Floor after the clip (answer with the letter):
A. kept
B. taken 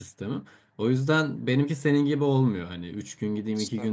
A